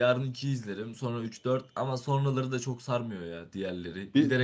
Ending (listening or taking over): taking over